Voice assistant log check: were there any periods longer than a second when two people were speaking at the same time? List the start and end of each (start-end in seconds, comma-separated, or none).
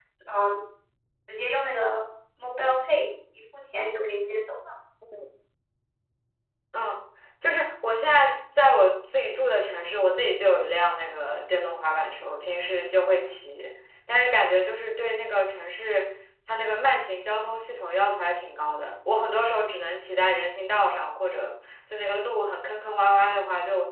none